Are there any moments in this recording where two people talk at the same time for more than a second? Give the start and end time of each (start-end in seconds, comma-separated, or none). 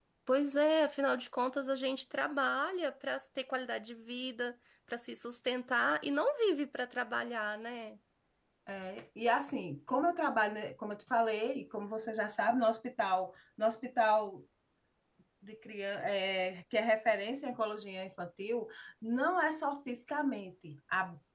none